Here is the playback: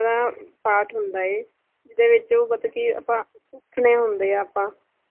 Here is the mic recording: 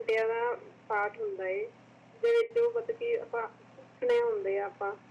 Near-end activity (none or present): none